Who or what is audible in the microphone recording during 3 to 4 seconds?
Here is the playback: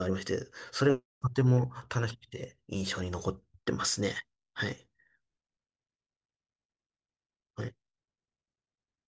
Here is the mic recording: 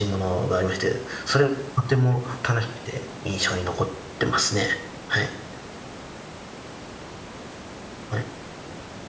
echo only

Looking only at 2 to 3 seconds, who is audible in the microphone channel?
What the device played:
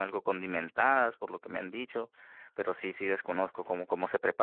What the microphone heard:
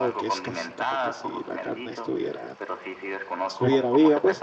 both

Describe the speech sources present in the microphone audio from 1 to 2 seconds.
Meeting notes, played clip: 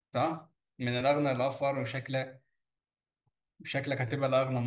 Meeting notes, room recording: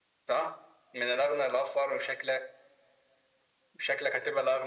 echo only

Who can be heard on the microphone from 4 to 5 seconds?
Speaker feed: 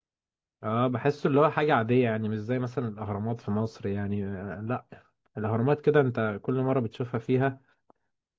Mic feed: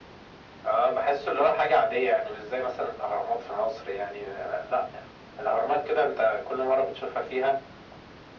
echo only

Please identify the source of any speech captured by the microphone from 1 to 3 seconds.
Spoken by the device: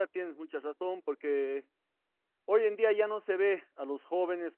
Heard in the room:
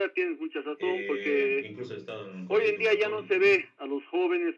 both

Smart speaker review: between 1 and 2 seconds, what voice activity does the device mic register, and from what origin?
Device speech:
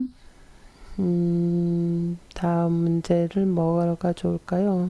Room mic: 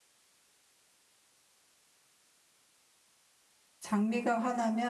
neither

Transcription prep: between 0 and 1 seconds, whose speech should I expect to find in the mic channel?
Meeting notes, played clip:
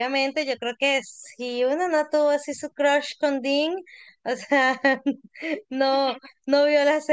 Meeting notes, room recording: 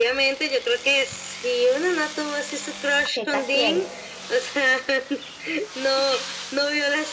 echo only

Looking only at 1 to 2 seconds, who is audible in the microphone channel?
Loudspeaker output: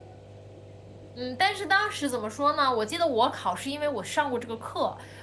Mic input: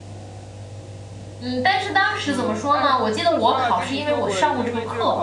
echo only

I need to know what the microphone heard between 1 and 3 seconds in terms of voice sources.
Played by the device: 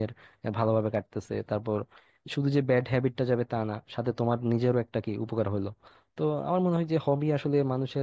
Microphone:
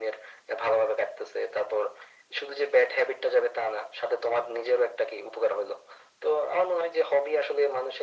echo only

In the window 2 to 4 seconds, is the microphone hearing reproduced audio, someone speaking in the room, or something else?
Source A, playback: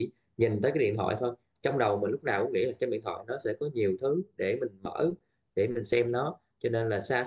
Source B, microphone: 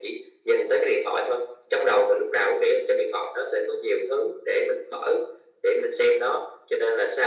echo only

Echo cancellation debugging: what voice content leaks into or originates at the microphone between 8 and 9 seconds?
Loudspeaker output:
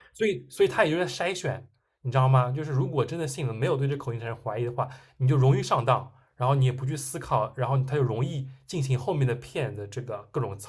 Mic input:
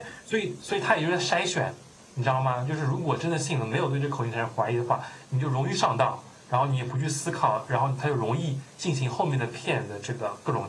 echo only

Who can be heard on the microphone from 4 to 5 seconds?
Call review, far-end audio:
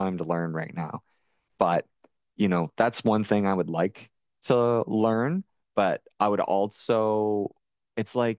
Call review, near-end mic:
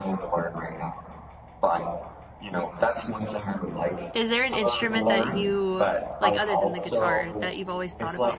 both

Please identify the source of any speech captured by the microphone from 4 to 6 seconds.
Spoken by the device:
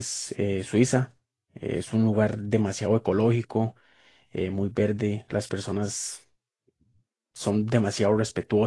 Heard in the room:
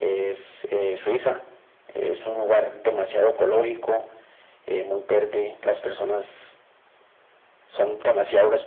echo only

